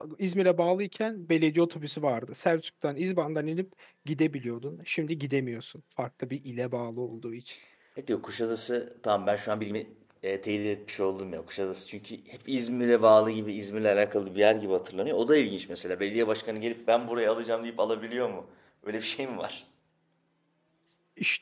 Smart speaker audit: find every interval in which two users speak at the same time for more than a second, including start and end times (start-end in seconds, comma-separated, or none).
none